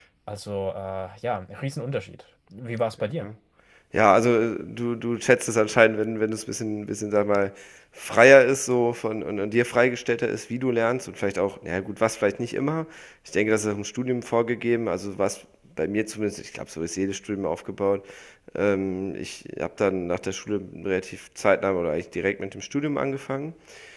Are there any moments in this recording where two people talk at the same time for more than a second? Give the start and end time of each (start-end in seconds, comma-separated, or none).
none